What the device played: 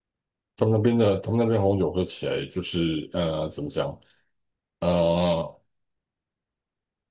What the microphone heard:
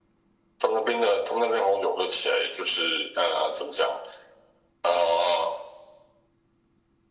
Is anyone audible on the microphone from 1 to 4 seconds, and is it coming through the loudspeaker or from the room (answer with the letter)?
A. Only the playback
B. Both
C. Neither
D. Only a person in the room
A